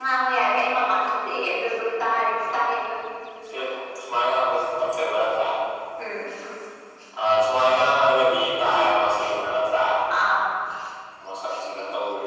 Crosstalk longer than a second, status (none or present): none